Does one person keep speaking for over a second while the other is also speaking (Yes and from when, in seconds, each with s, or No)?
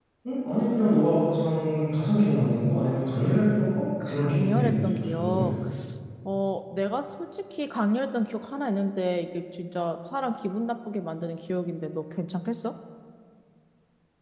Yes, from 4.0 s